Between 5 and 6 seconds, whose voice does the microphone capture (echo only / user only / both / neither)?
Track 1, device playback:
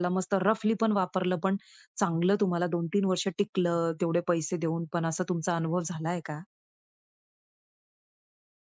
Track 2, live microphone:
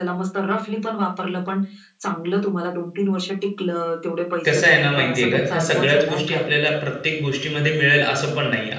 both